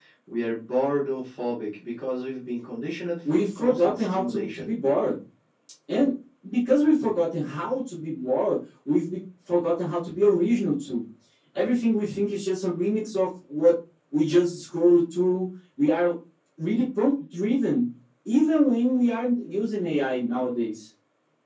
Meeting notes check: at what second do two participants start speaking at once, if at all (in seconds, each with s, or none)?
3.2 s